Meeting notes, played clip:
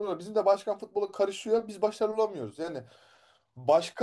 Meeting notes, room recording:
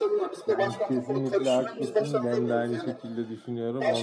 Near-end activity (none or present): present